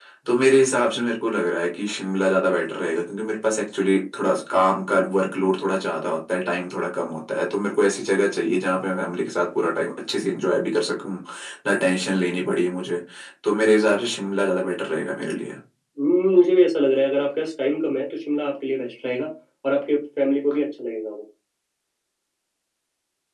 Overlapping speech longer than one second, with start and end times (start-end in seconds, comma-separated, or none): none